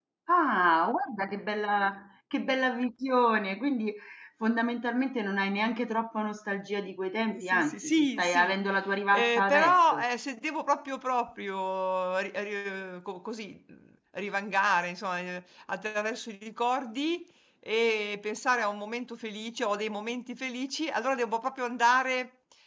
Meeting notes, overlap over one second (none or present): present